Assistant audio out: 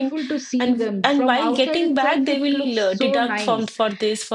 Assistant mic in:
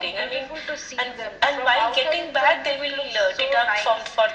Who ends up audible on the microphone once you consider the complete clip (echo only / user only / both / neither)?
echo only